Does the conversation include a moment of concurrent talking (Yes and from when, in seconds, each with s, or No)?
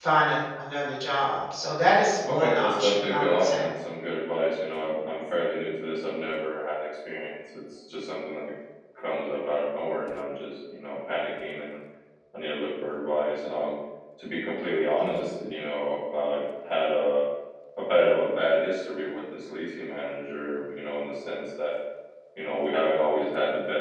Yes, from 2.3 s